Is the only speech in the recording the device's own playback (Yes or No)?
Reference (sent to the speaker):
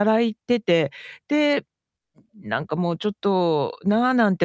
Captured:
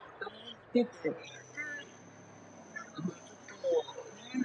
Yes